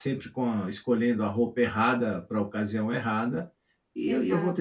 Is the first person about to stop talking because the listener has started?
No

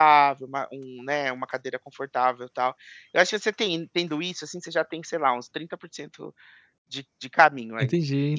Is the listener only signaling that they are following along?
Yes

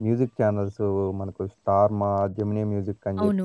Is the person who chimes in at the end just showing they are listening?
No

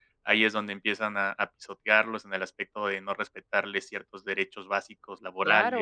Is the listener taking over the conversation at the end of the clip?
Yes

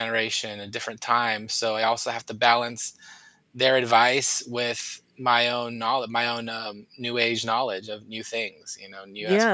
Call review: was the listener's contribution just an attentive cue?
No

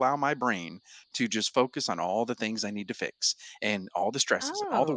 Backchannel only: Yes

